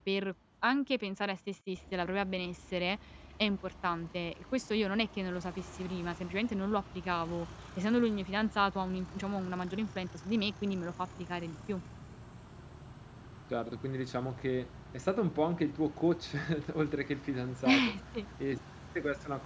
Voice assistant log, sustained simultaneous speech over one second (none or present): none